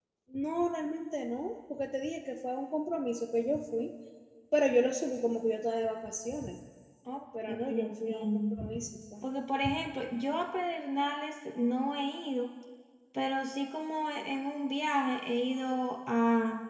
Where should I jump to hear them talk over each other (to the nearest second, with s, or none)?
7 s